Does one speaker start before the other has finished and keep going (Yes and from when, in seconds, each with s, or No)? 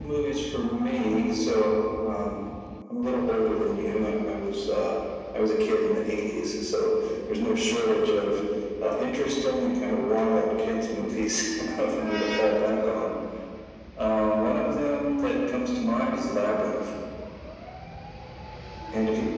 No